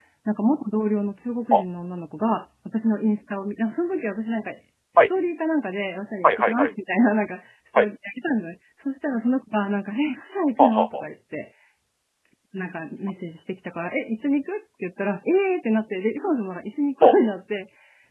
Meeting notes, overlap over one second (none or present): none